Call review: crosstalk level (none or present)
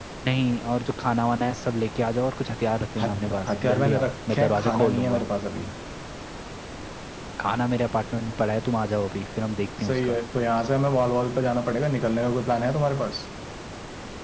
present